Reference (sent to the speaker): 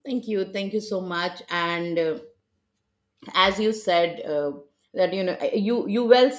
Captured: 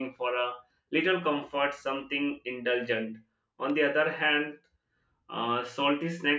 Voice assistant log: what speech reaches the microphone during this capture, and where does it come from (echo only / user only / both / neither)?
user only